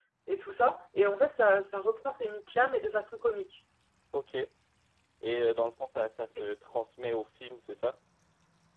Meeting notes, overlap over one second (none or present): none